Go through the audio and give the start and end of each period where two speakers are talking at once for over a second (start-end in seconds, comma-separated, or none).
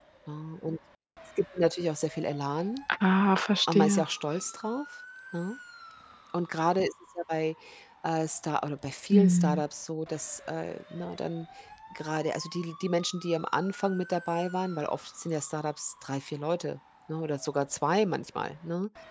none